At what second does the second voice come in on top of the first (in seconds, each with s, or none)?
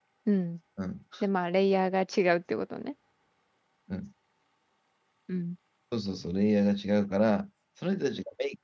none